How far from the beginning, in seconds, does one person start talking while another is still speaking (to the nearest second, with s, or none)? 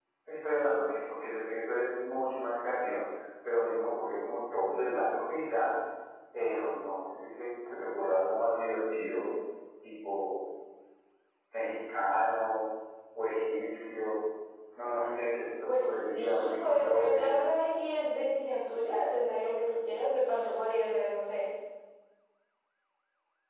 16 s